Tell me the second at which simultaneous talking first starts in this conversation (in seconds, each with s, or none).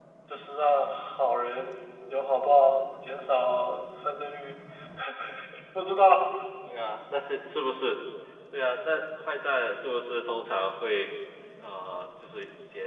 none